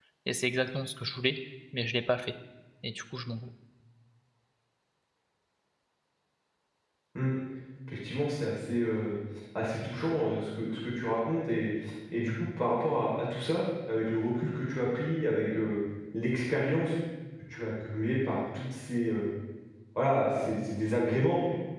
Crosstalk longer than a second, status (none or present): none